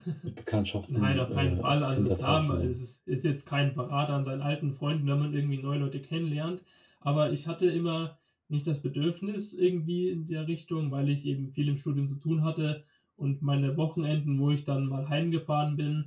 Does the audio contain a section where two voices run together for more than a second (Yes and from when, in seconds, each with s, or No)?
Yes, from 1.0 s